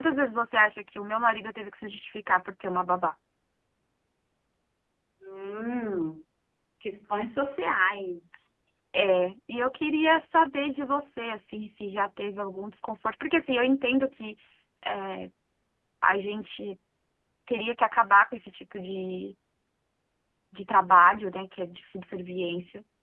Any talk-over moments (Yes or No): No